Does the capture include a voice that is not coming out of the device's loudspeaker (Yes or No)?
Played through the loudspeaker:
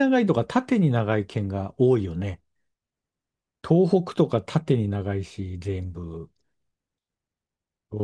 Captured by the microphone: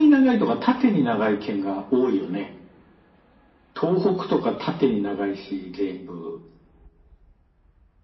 No